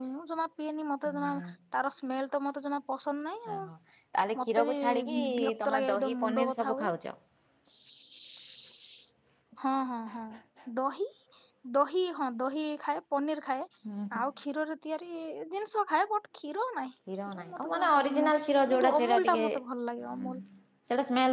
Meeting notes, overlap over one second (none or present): present